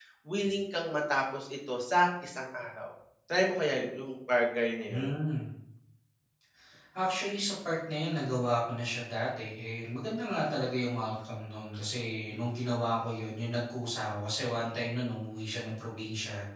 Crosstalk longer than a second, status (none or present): none